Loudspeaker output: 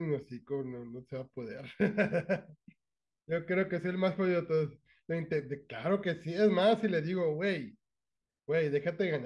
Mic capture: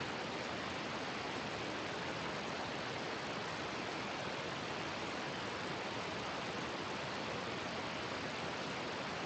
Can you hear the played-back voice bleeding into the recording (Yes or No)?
No